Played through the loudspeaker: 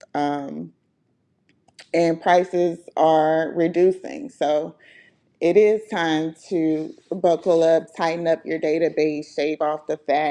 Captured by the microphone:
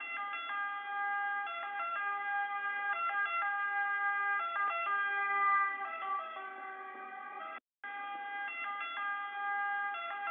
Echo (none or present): none